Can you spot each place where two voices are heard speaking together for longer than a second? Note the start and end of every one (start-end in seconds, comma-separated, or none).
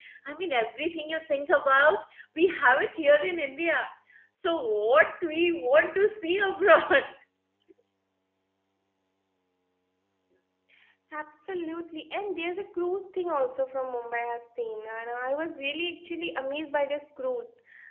none